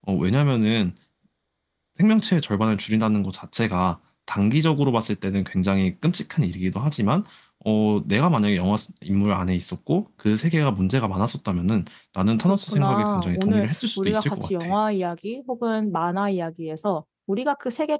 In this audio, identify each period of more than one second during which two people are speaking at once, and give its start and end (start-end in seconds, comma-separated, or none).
12.5-14.7